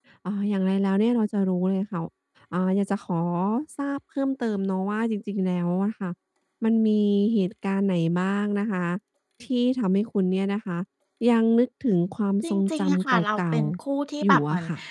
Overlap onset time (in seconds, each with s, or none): 12.4 s